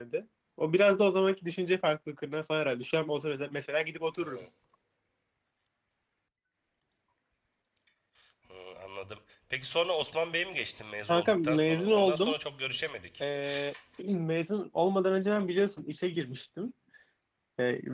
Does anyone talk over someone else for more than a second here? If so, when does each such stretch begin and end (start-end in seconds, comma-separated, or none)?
11.1-12.3